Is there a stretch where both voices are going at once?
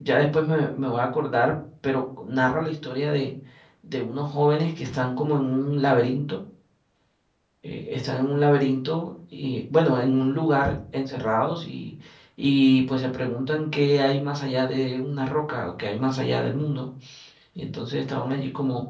No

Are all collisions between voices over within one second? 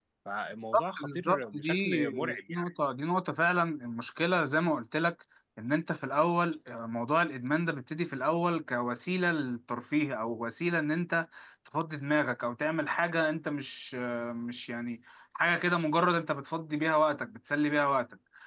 No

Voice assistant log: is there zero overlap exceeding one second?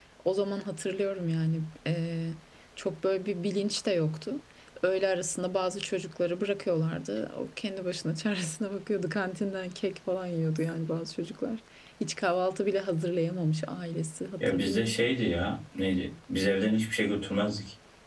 Yes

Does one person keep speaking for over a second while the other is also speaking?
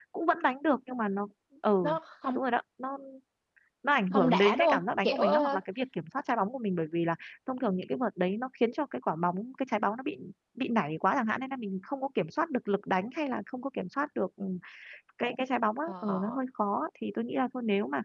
Yes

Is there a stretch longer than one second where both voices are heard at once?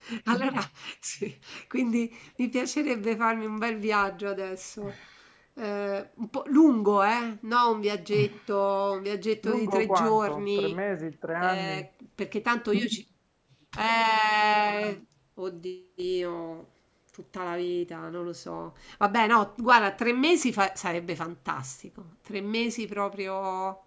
Yes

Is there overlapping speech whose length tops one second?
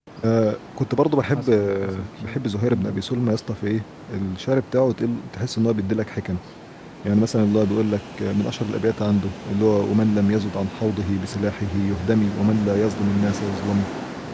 Yes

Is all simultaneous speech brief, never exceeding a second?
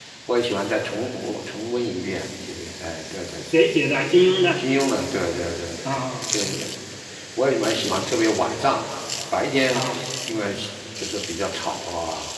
Yes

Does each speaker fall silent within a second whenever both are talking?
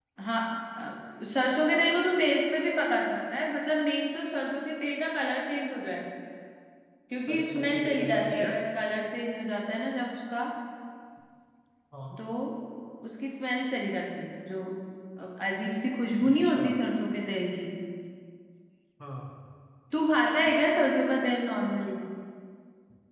No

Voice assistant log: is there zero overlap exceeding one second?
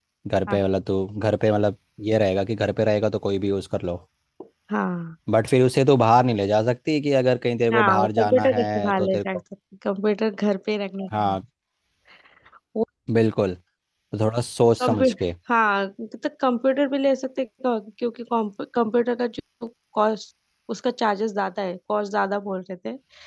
No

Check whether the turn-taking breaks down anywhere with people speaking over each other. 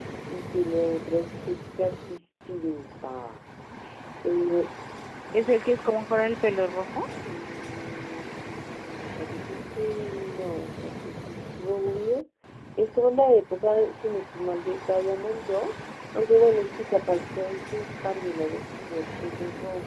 No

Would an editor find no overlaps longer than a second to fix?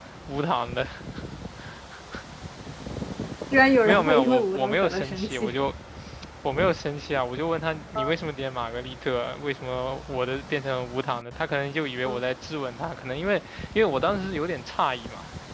No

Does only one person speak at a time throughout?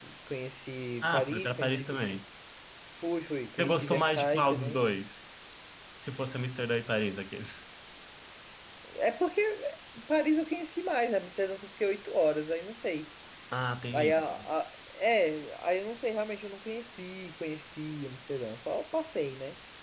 No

